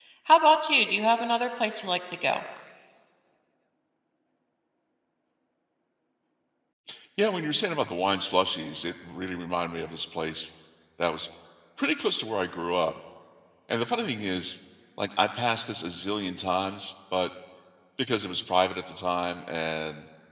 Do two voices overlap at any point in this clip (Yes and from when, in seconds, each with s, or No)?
No